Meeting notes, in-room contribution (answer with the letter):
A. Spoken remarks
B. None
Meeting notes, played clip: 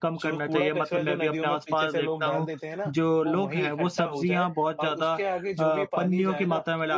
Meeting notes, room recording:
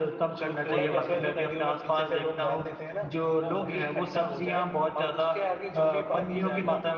A